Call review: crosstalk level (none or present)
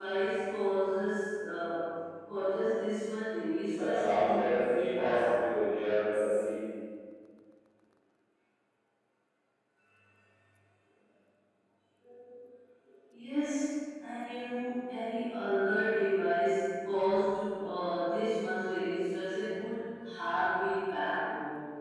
present